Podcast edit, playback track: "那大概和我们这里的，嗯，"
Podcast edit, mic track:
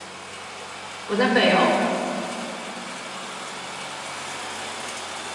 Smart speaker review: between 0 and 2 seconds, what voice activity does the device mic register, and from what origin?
user only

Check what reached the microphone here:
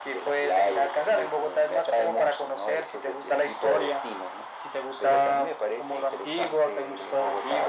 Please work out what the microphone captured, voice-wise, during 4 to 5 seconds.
echo only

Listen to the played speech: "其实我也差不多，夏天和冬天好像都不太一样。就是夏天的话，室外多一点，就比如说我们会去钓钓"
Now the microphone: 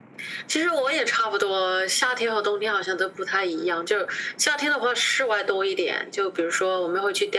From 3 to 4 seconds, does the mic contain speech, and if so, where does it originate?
echo only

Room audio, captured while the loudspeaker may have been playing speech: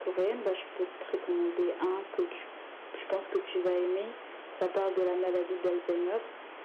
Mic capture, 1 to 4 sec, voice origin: echo only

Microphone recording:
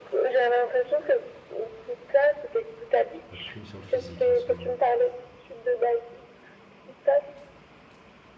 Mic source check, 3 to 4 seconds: both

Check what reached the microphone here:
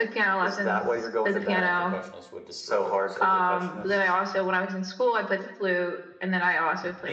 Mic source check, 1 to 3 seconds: both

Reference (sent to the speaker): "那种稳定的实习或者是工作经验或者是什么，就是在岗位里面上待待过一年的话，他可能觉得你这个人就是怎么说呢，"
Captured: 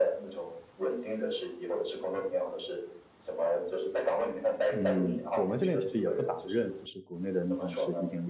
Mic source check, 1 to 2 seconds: echo only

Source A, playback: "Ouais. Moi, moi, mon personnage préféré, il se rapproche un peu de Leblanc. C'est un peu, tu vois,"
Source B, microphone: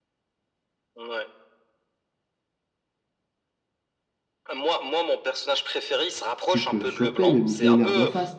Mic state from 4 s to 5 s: echo only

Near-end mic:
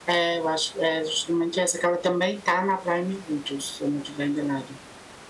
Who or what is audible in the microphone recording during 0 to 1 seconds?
echo only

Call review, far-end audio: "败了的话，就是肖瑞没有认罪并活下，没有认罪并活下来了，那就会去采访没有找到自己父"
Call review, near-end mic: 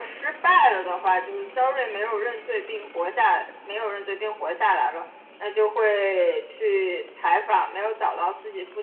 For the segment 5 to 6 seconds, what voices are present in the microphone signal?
echo only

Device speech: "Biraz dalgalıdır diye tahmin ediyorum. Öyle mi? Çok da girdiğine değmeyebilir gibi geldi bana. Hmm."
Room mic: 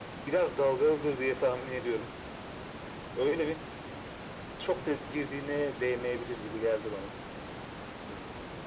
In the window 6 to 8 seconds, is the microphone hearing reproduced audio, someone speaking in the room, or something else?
echo only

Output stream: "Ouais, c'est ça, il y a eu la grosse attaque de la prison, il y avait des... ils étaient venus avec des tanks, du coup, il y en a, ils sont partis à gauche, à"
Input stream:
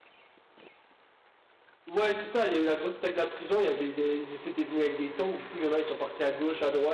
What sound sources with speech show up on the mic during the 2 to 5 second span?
echo only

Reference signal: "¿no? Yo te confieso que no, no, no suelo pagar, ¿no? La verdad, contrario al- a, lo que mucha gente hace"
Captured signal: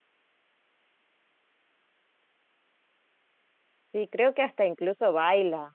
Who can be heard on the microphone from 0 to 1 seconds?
neither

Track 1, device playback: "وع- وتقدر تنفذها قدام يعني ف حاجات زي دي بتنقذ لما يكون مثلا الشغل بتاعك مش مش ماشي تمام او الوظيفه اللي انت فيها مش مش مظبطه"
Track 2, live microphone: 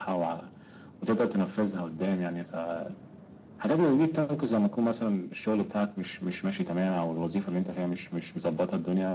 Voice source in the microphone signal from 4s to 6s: echo only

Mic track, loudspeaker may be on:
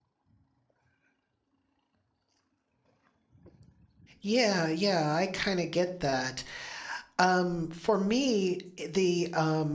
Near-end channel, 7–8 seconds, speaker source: user only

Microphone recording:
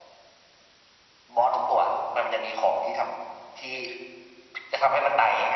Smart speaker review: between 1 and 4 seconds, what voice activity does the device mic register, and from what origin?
echo only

